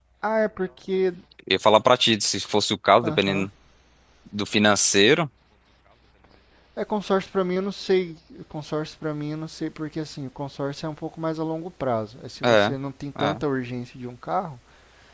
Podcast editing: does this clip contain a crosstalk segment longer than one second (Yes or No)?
No